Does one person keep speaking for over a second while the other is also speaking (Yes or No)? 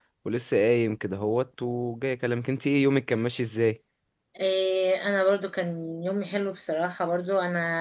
No